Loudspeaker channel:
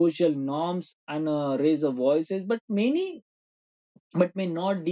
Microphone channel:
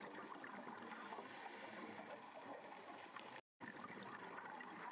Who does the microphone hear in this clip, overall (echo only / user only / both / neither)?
neither